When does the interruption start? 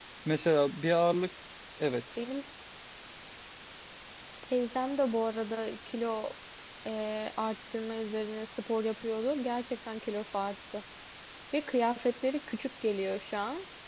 none

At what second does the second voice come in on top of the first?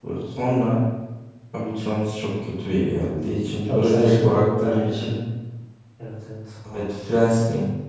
4 s

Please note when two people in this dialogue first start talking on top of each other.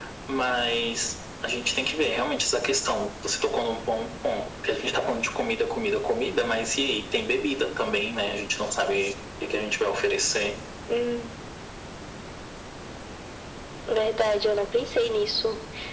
none

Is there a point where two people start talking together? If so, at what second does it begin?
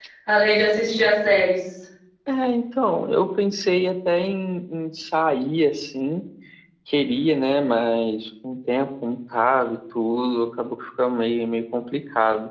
none

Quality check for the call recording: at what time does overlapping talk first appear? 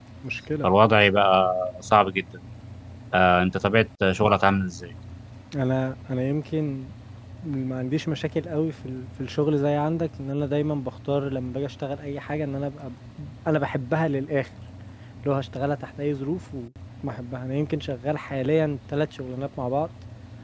none

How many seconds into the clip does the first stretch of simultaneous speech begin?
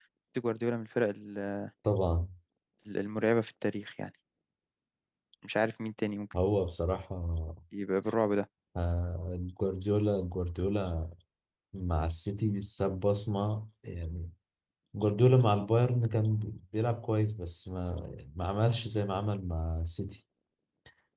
none

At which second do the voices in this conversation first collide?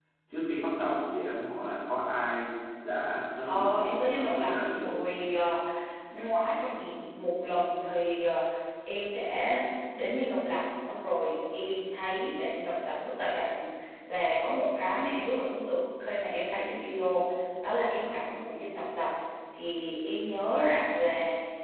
3 s

